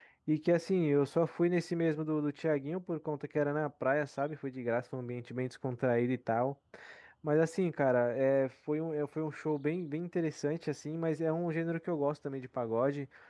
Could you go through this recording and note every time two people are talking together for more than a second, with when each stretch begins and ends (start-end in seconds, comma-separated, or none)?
none